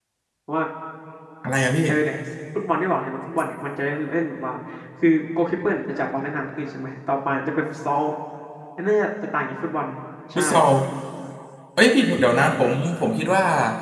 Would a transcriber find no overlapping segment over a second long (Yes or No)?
Yes